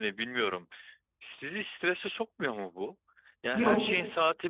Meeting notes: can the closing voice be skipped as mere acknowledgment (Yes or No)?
Yes